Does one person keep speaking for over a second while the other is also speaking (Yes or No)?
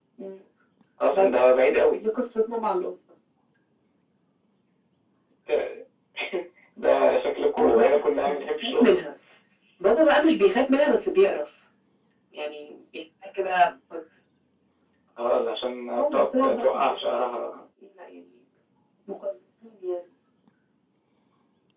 Yes